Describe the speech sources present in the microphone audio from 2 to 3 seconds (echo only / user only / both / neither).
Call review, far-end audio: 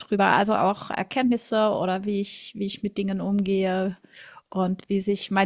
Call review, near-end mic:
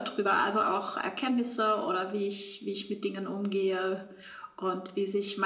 echo only